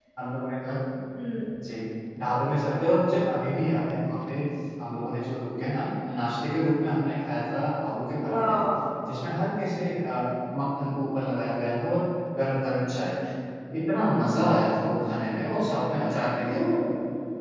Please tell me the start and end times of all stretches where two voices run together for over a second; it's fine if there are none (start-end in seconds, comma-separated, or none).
none